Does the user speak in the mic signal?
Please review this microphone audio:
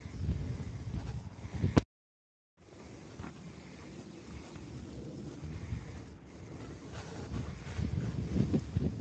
No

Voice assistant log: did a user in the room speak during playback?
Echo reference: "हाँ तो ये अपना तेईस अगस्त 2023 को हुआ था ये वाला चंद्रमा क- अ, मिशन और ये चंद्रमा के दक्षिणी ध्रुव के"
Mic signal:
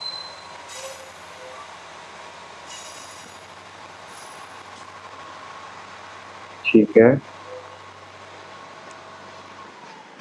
Yes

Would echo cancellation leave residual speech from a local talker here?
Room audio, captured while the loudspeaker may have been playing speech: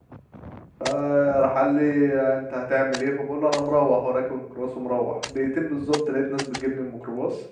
Yes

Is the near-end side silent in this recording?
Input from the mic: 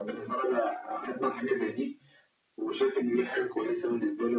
Yes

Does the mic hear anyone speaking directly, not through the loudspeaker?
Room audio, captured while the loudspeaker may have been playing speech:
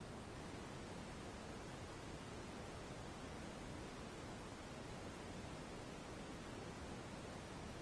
No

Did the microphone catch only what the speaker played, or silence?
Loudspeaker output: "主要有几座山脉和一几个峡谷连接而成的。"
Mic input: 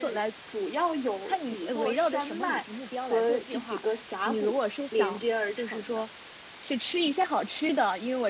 No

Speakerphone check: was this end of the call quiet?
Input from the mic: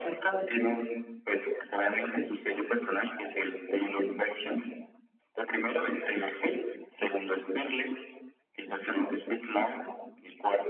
Yes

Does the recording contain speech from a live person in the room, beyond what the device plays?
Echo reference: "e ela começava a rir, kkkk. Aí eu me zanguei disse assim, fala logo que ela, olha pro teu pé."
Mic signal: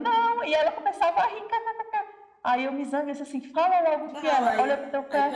Yes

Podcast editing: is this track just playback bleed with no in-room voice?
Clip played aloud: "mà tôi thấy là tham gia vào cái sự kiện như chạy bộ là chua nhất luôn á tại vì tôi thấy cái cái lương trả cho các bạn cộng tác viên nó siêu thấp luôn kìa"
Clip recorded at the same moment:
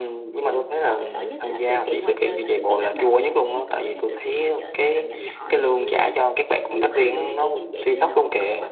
No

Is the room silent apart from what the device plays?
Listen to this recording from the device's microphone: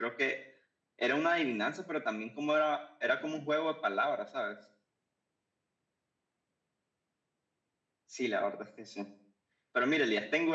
Yes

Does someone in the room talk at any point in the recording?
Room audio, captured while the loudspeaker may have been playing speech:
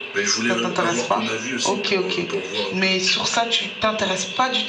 Yes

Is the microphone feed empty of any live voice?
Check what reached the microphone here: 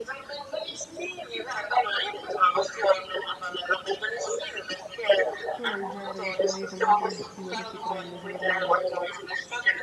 No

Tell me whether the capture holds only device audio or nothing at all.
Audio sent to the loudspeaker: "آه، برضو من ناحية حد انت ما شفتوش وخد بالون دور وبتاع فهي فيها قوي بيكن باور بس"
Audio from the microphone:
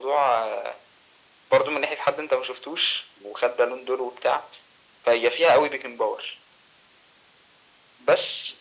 Yes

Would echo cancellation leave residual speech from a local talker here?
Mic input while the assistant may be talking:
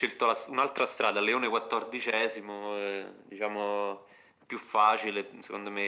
No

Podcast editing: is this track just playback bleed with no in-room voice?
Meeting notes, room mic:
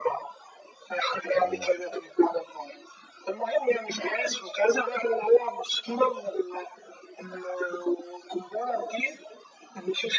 No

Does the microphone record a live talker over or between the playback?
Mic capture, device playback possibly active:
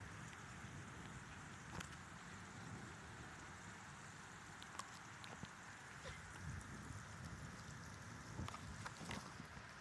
No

